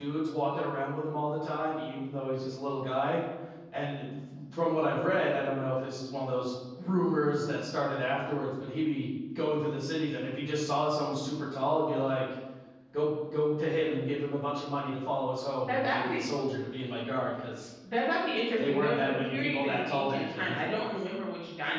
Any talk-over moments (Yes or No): Yes